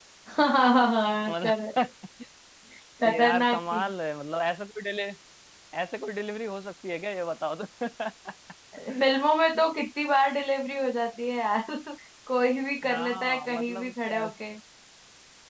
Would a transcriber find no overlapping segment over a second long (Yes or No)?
No